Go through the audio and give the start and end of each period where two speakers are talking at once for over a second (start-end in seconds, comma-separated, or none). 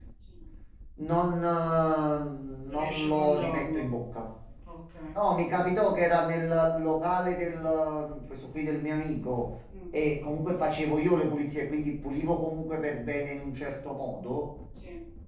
2.6-3.9